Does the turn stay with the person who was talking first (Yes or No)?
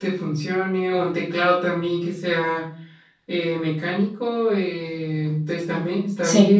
Yes